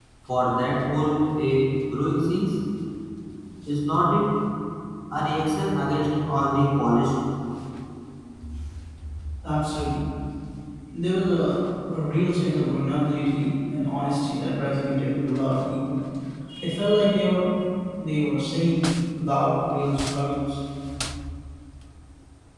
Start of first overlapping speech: none

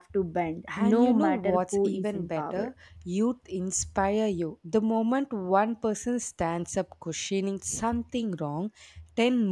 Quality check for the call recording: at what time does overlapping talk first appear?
0.8 s

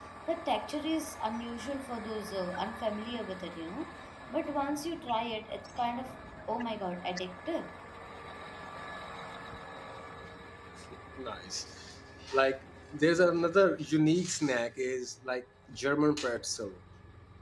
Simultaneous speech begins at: none

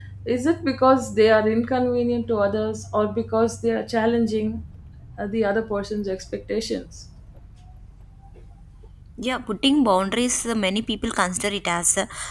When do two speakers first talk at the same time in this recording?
none

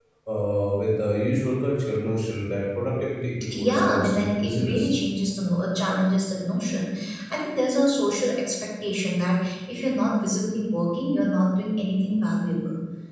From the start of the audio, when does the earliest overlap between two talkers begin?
3.5 s

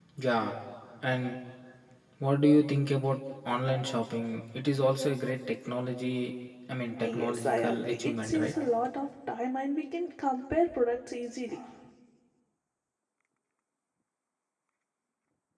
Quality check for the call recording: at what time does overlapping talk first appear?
7.0 s

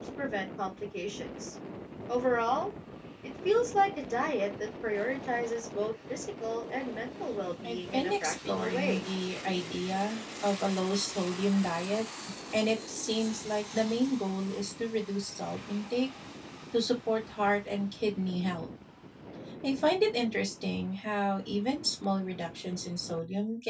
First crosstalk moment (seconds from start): 7.6 s

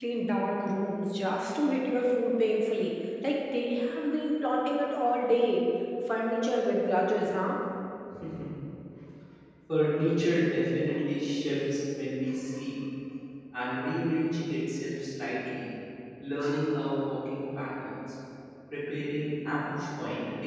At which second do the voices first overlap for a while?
none

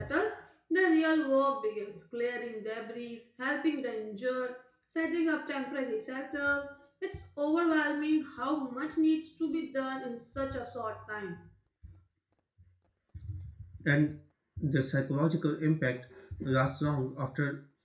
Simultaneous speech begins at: none

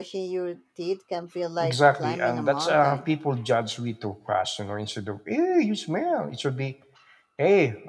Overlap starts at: 1.6 s

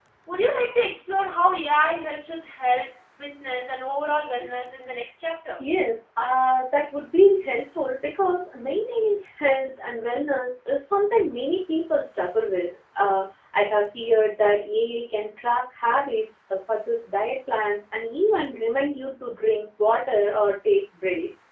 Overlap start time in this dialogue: none

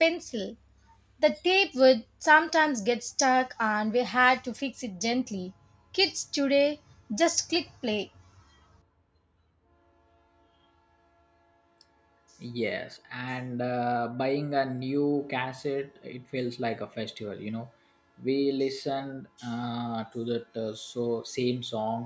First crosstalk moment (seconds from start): none

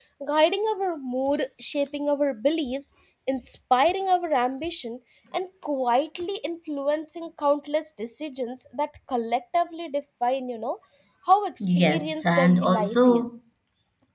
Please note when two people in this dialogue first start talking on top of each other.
11.6 s

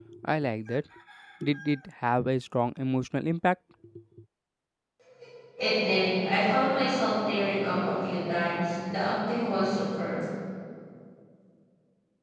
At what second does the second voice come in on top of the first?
none

